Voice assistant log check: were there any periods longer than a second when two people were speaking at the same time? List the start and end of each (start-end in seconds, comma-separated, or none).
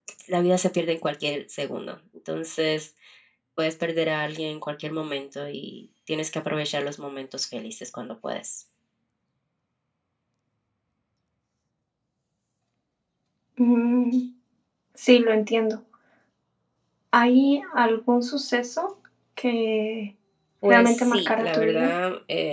20.7-21.9